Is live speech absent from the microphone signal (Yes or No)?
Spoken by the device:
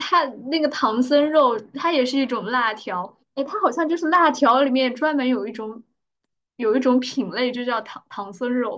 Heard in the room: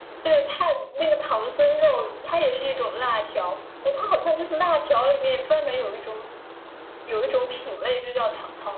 Yes